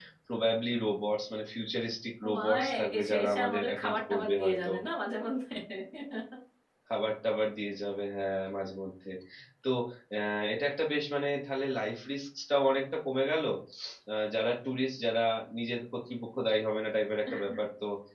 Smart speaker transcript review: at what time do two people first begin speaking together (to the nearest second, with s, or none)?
2 s